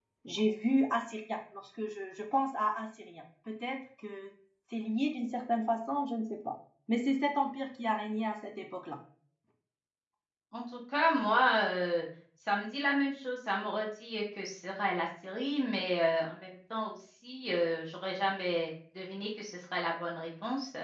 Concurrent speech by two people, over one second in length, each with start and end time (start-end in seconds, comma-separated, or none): none